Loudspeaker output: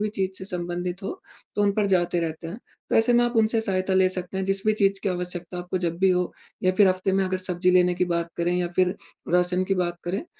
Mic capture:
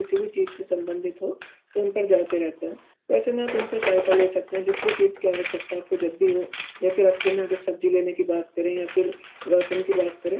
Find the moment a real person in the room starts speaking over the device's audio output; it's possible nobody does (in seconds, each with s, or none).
none